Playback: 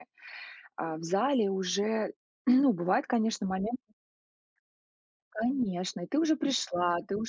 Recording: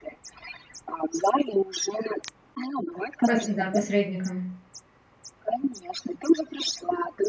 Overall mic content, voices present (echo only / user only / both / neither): both